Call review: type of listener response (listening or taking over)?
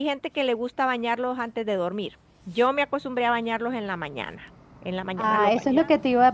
taking over